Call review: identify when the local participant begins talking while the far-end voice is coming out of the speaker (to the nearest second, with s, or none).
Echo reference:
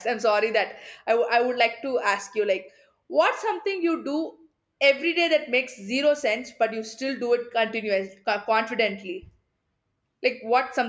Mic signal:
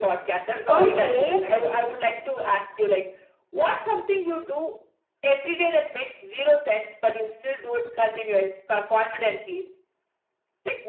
1 s